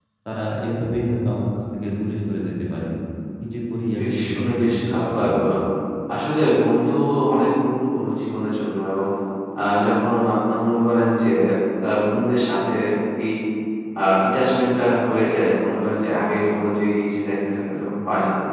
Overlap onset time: 4.0 s

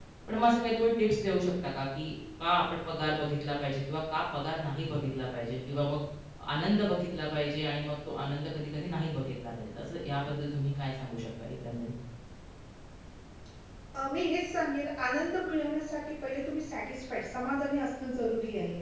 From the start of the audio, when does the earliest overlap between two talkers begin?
none

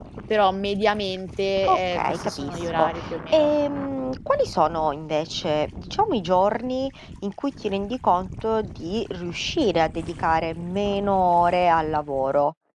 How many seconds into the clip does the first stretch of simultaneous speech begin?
1.7 s

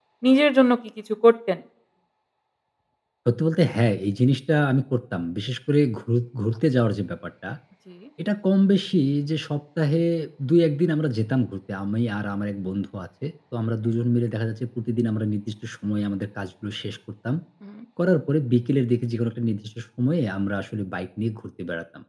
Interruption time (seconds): none

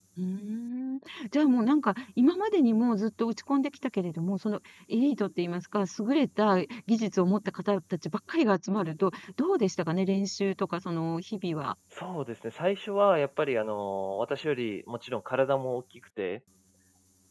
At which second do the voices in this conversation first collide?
none

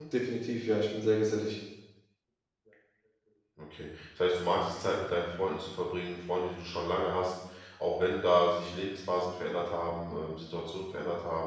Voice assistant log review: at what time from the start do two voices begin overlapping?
none

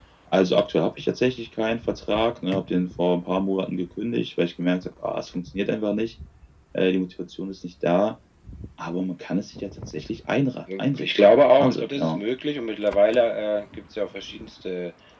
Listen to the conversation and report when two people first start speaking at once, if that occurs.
11.0 s

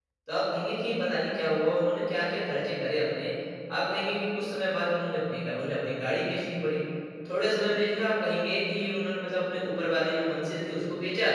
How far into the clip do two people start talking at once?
none

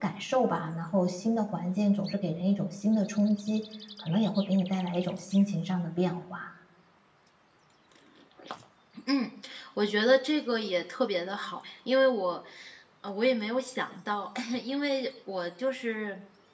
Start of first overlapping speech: none

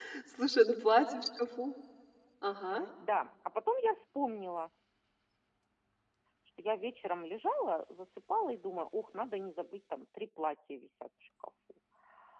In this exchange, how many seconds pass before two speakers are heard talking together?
none

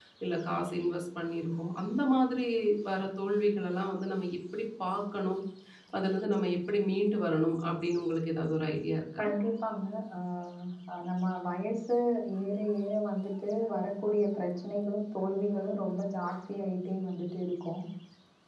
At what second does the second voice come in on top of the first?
none

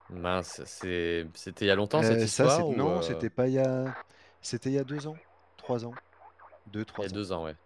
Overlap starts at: 1.9 s

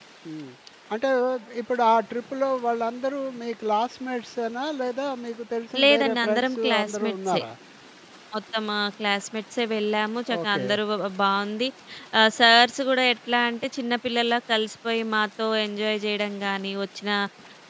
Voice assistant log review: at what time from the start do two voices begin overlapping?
5.8 s

